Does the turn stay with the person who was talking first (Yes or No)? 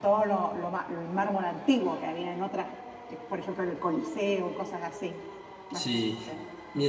No